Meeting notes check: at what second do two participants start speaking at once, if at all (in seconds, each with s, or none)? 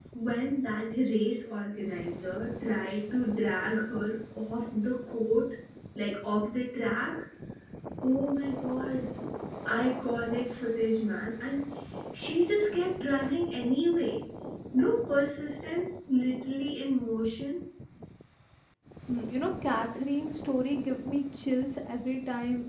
none